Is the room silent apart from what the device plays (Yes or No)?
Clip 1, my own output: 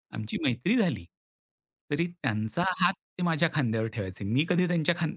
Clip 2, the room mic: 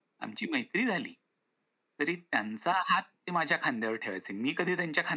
Yes